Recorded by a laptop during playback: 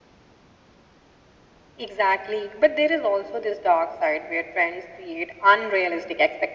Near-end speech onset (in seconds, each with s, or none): none